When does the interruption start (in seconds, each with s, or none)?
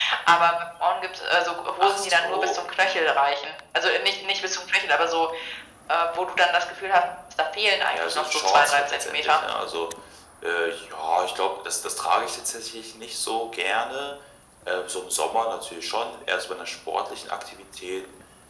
1.8 s